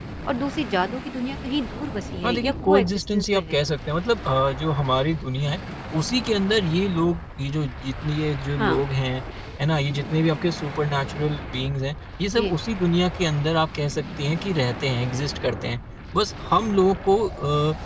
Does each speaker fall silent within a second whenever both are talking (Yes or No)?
No